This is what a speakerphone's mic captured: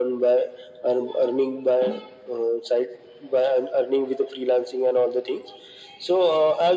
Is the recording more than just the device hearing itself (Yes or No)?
No